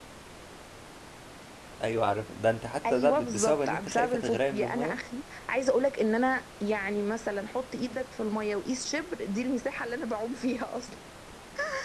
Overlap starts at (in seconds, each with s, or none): 2.8 s